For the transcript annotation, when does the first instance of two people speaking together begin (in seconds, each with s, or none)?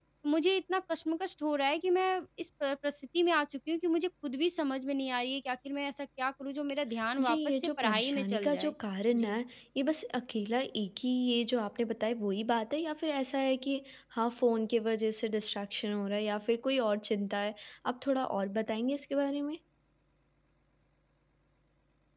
7.2 s